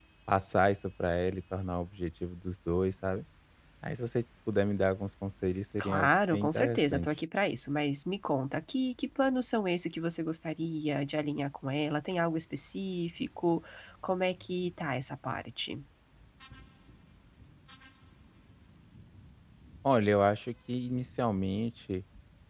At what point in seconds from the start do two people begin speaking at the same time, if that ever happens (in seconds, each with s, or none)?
5.8 s